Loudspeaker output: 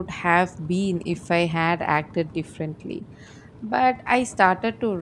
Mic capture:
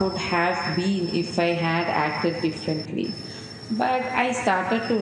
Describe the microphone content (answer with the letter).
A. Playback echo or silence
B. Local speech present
A